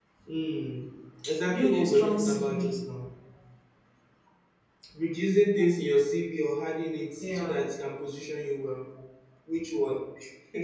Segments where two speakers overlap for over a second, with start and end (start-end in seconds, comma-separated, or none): 1.5-2.7